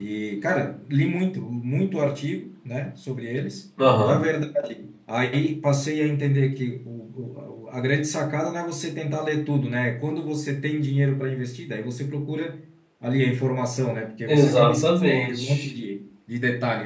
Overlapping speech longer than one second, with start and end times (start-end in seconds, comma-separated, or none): 14.3-15.6